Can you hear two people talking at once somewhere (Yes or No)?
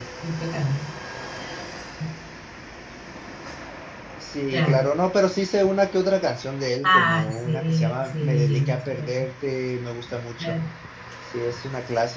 Yes